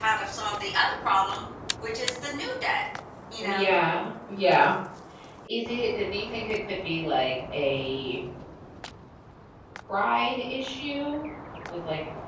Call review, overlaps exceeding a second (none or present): none